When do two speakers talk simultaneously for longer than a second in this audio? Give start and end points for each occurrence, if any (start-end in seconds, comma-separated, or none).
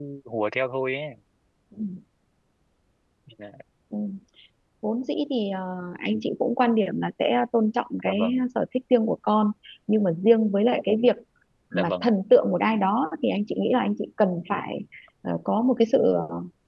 none